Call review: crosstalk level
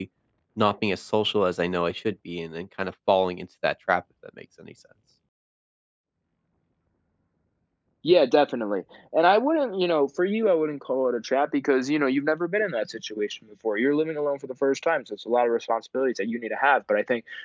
none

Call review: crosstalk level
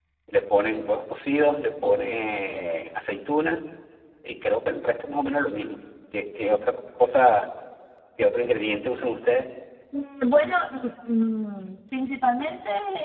none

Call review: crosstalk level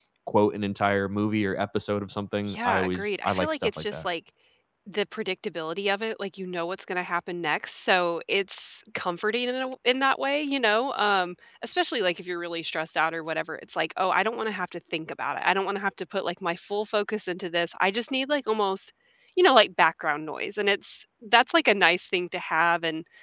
present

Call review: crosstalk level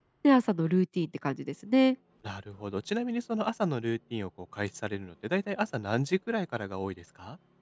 none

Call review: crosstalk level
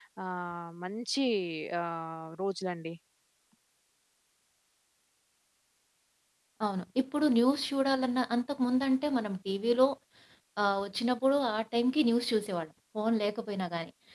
none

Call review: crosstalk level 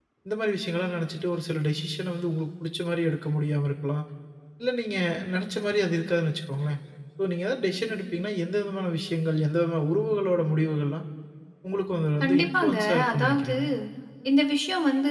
present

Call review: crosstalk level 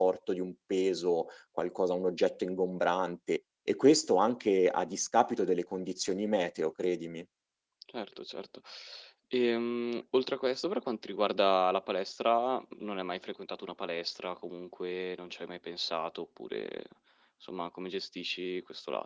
none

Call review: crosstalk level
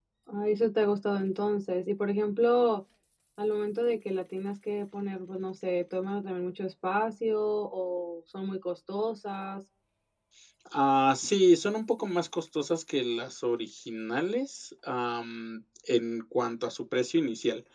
none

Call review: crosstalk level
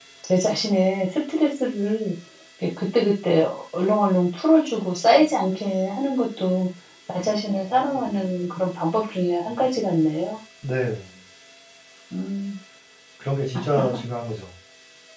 none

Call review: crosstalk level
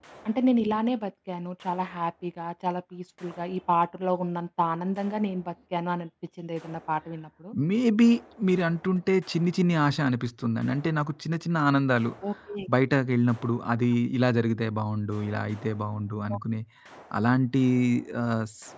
none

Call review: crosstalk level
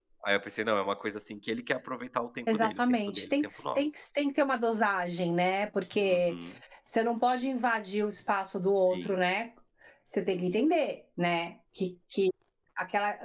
present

